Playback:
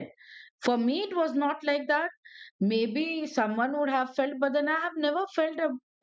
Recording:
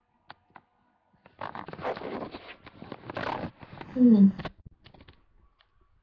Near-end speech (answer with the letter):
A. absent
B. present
B